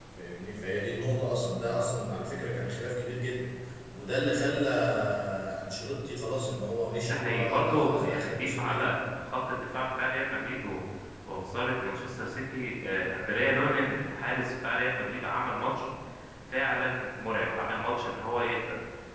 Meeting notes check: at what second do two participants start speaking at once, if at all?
7.1 s

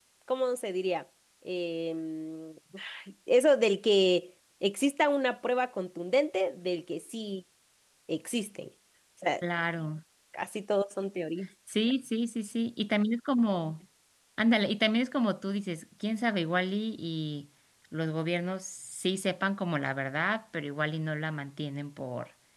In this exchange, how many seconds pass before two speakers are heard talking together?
none

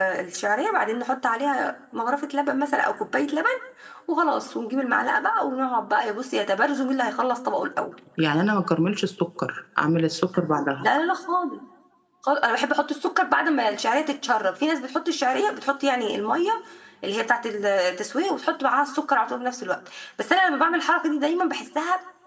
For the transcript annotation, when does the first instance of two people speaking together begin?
none

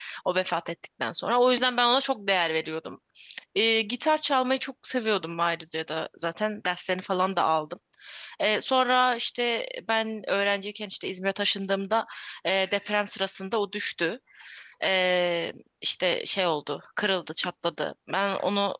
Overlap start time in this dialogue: none

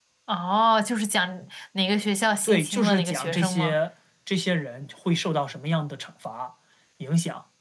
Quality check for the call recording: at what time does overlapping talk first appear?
2.4 s

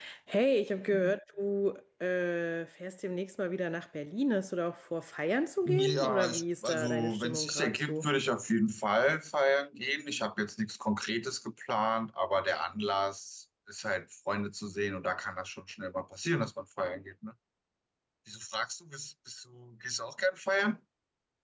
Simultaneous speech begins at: 5.7 s

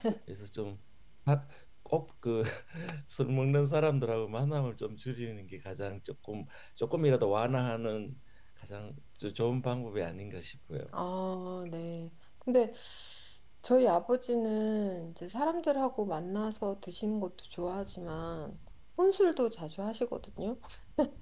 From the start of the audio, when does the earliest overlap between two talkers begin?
none

